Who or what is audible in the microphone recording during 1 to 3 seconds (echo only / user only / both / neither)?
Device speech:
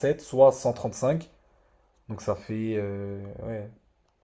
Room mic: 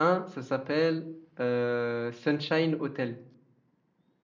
user only